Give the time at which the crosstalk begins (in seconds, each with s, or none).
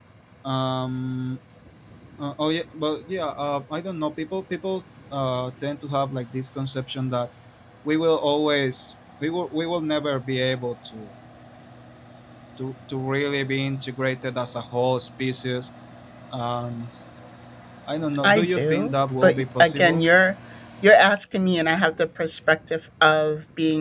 18.2 s